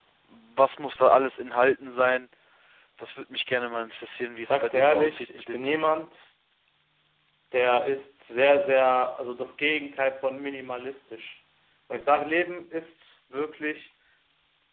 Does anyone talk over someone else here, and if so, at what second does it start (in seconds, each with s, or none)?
4.4 s